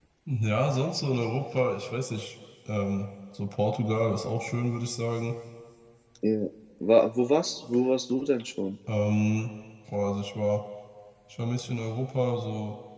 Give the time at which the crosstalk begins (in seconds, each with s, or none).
none